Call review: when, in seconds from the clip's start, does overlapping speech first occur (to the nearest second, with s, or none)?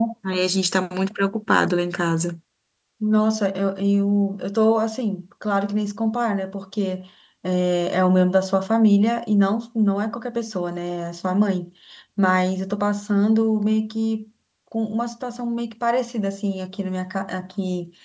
none